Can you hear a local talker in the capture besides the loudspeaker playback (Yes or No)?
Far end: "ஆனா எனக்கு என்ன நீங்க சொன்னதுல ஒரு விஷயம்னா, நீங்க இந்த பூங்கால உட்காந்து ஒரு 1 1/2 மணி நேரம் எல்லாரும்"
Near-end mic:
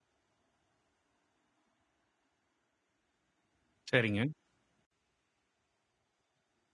Yes